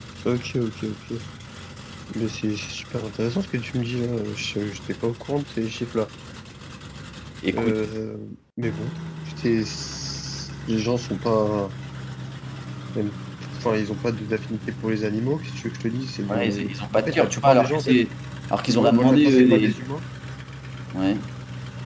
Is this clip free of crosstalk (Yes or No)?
No